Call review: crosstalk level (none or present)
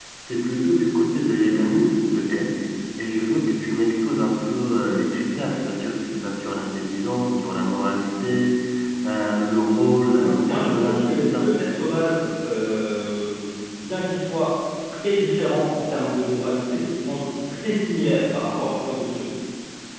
present